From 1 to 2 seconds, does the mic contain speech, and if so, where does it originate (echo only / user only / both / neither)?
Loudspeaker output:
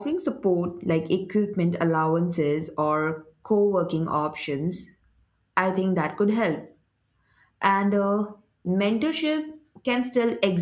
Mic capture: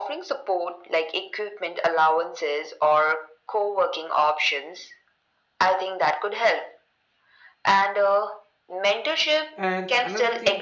echo only